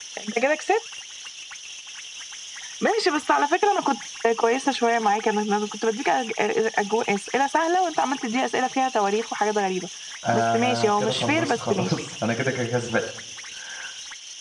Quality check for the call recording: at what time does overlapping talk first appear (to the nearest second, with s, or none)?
10 s